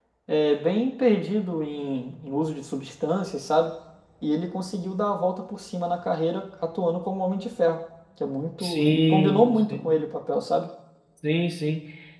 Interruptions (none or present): present